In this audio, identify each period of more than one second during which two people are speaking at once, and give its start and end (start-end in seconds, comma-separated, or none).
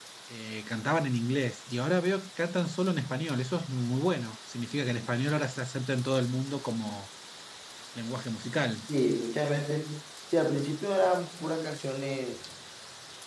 none